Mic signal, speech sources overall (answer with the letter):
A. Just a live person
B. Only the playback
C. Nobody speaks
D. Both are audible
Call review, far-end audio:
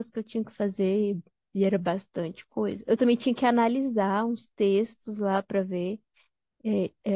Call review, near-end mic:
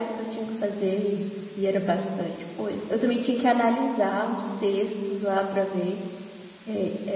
B